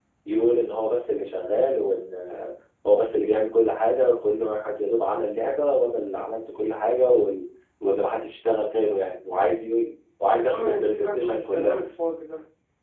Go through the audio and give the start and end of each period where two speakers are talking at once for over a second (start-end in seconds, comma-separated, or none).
10.3-11.8